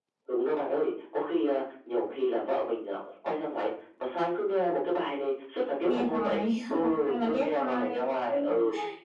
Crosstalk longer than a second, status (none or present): present